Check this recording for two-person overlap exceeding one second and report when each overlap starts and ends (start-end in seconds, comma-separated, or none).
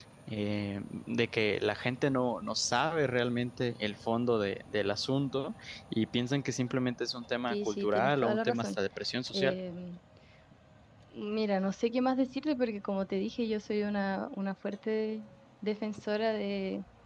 7.5-8.8